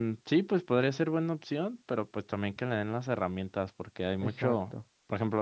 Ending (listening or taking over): listening